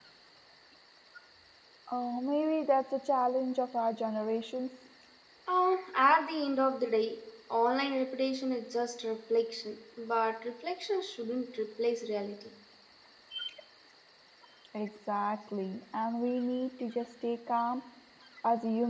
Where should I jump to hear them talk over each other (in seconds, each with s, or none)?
none